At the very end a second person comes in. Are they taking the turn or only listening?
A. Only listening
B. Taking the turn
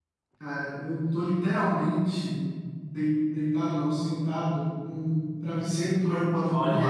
B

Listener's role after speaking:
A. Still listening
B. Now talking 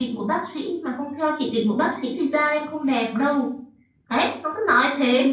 B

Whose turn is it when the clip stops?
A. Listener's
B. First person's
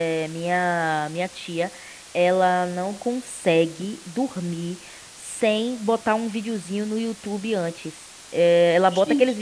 B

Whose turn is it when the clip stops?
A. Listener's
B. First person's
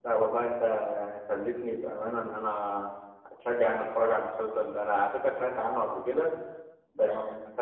B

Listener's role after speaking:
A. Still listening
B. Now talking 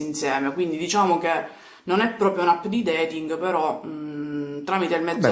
B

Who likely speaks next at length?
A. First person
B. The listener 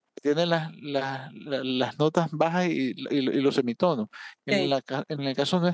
A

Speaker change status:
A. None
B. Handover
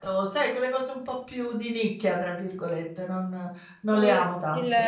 B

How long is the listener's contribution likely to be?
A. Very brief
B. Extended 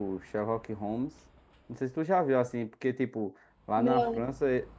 A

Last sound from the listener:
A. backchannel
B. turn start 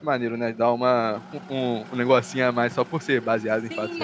B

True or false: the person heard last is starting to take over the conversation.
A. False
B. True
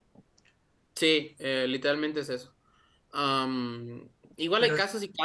A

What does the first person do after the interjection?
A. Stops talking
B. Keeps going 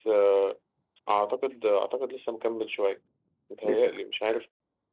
B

